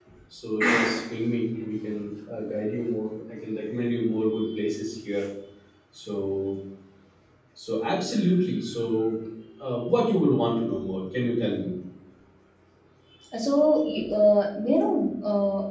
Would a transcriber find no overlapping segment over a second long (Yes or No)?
Yes